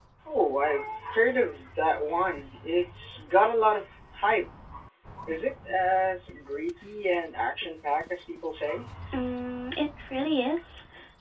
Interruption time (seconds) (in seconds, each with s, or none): none